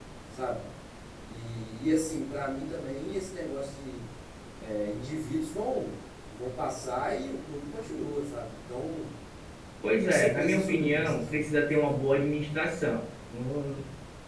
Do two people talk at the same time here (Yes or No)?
Yes